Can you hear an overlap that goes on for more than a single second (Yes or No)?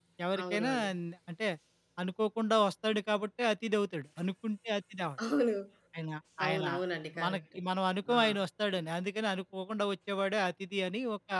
No